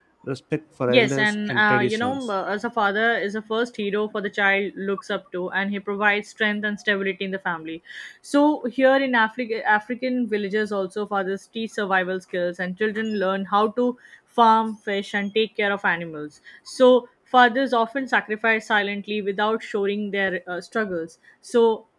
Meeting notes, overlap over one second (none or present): present